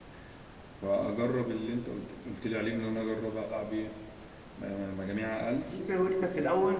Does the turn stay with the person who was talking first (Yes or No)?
No